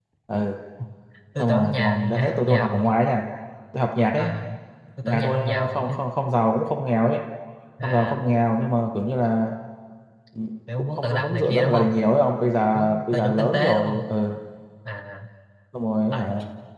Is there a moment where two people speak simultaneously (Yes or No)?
Yes